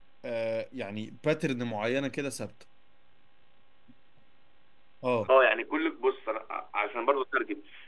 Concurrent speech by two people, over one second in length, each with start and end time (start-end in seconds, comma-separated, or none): none